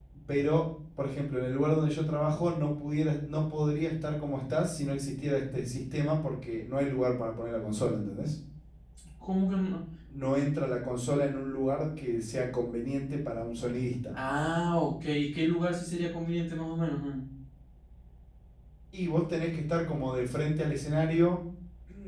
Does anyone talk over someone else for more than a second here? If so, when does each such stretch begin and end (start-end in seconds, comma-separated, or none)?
none